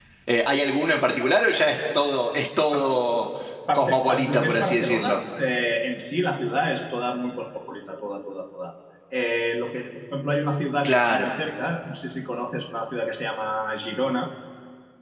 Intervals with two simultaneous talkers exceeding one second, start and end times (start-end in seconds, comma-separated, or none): 3.7-5.2